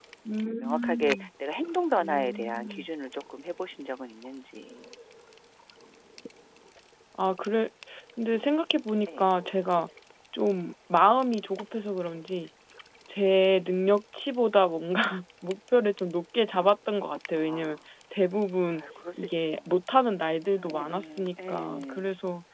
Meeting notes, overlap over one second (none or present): present